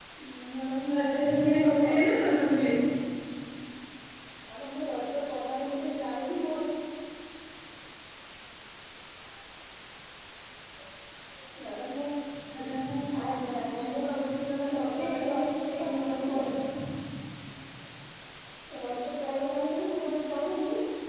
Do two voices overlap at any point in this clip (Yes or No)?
Yes